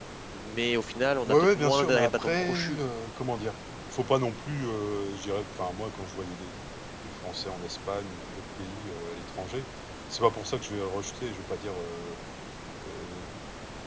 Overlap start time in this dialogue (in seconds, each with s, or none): 1.2 s